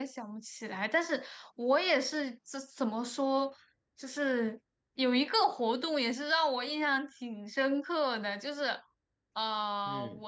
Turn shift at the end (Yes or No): No